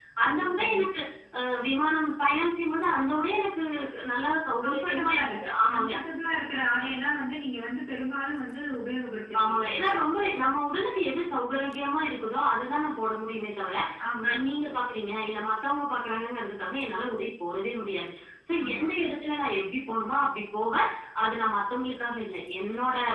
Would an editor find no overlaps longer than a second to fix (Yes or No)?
No